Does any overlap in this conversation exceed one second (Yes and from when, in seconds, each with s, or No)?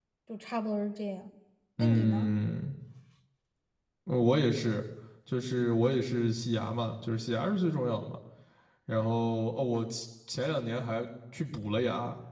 No